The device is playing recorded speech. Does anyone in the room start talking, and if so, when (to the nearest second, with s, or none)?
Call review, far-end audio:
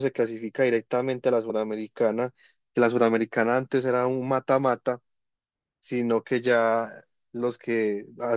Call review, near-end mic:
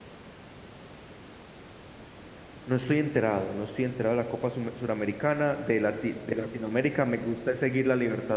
3 s